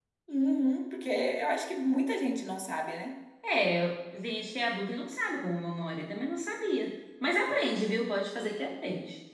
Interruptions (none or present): none